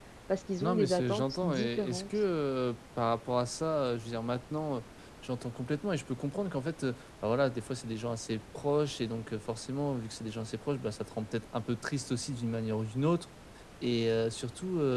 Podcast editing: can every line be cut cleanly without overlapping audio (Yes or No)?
No